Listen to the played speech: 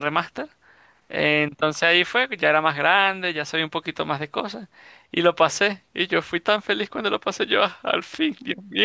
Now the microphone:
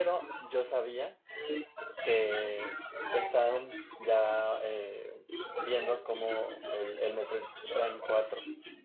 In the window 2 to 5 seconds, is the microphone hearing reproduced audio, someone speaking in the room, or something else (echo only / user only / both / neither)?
both